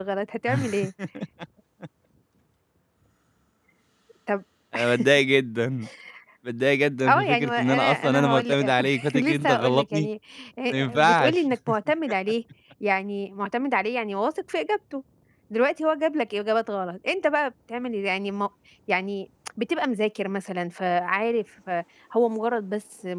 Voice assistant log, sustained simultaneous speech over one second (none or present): present